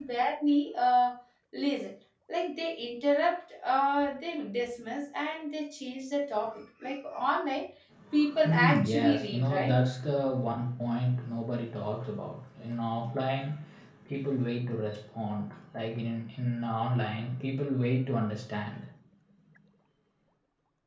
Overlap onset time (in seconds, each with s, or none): 8.4 s